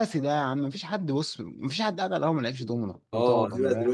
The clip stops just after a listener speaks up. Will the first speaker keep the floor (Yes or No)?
No